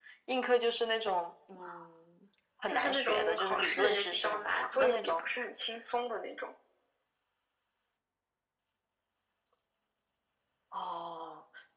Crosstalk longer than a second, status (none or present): present